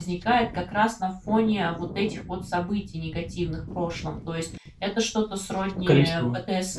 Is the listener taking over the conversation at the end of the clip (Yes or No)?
No